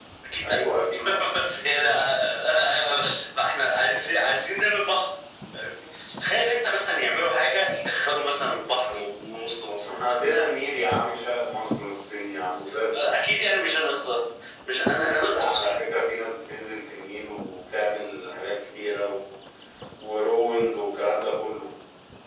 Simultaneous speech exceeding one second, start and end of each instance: none

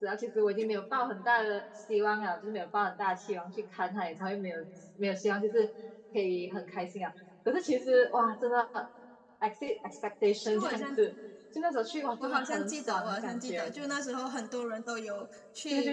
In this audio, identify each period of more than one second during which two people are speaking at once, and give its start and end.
12.2-13.7

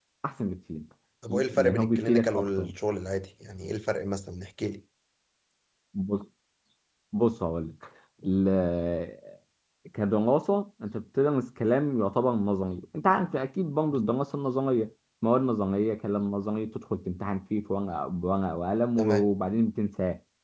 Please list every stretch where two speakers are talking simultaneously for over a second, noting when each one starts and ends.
1.3-2.7

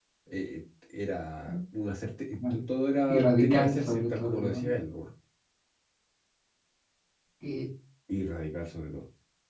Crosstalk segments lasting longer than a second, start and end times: 3.1-4.7

